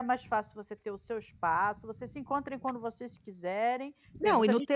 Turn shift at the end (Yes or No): Yes